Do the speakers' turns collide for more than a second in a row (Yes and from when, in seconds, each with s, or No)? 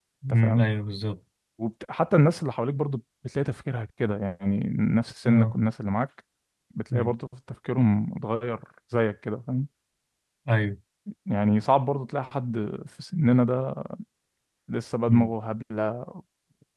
No